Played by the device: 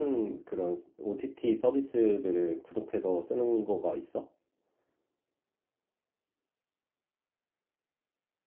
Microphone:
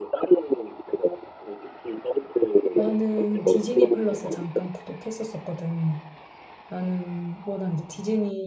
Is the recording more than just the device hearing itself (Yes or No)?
Yes